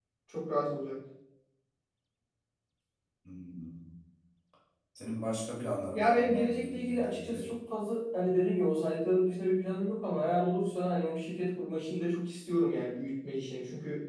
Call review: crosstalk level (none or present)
present